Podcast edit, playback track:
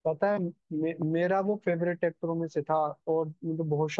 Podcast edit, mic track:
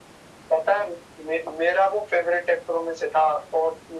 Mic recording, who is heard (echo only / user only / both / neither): echo only